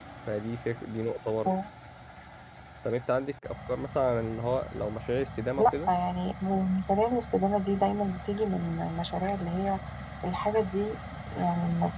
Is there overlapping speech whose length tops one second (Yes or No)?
No